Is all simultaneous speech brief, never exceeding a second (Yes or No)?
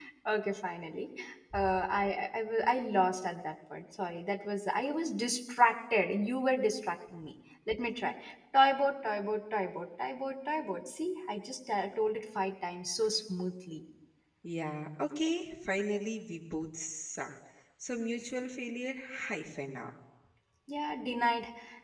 Yes